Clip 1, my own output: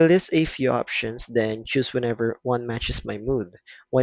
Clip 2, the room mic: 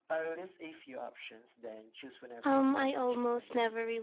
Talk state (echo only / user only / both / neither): both